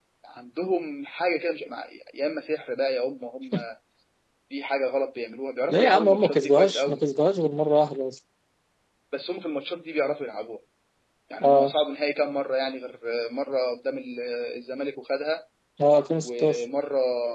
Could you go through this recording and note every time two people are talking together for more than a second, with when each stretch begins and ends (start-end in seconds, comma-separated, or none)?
5.7-7.0